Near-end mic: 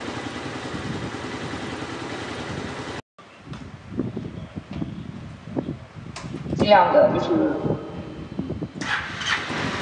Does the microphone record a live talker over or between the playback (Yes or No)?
Yes